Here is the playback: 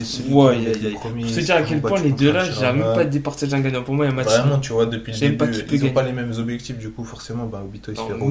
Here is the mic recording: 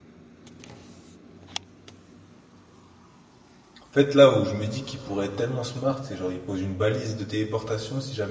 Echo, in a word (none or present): none